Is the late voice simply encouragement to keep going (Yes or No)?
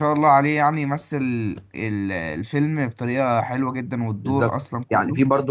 No